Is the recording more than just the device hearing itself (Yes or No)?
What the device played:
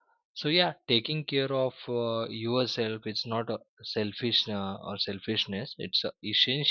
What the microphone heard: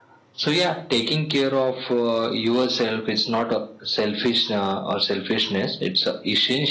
No